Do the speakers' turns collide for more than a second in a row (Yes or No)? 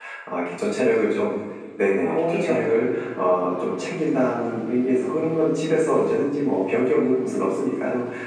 Yes